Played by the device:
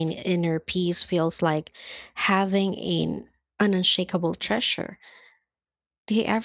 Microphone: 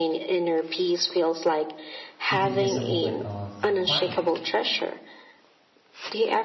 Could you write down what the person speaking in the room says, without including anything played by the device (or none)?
even just a moment of quiet.